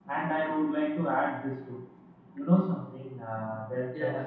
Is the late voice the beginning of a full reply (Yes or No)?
No